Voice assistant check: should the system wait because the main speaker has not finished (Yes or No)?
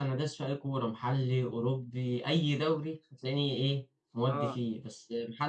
Yes